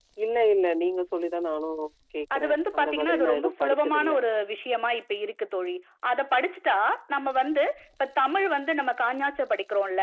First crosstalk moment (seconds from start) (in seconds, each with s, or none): 2.4 s